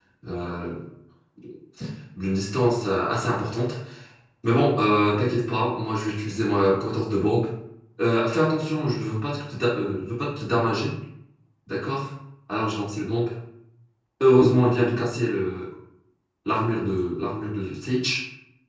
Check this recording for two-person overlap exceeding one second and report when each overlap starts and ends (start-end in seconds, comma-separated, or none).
none